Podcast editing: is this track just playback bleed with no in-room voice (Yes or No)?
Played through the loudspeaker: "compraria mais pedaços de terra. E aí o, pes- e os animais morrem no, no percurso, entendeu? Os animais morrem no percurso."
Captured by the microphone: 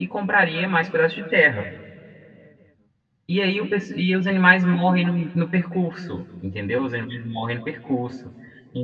Yes